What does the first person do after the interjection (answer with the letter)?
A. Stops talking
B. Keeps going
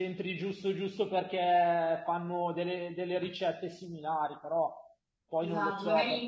A